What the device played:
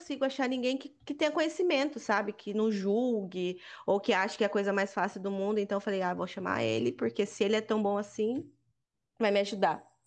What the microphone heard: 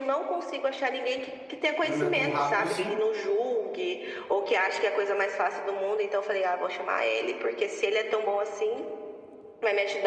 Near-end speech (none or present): present